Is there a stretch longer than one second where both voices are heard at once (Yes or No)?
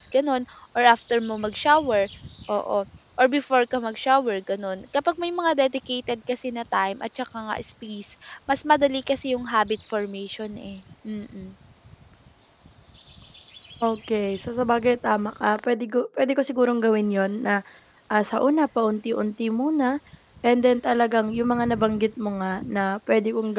No